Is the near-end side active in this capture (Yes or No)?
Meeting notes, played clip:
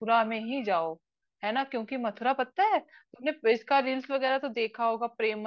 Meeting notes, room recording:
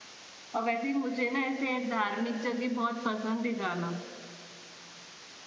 Yes